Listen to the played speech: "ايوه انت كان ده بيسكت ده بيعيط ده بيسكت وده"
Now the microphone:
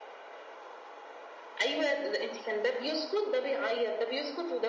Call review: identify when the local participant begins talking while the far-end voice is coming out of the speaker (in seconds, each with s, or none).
none